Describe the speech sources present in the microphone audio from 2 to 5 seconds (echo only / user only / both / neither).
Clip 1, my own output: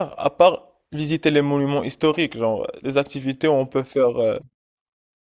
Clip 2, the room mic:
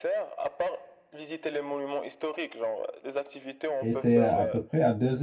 both